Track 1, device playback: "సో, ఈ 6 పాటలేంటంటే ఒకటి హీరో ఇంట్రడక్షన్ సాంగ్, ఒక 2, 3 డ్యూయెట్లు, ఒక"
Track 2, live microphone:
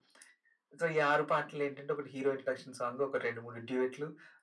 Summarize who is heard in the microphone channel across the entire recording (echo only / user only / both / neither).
echo only